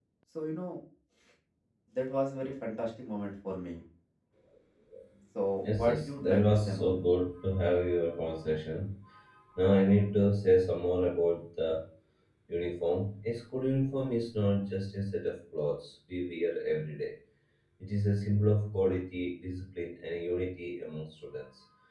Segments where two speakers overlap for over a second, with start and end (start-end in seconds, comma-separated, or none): 5.6-6.9